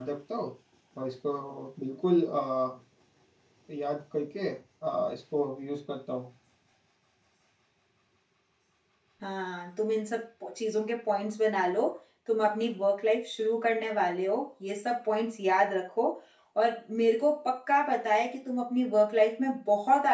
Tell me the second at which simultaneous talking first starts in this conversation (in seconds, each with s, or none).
none